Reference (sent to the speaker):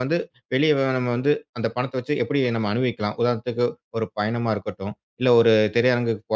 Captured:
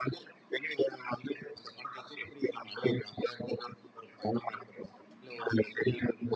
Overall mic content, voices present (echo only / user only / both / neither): echo only